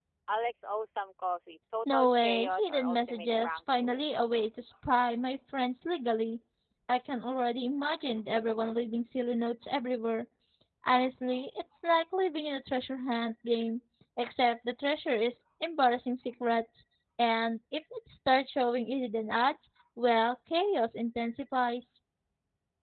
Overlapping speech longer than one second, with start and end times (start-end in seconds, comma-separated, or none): 1.9-4.1